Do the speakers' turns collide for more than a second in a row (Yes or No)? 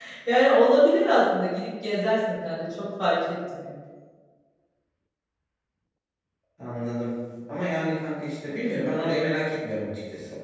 No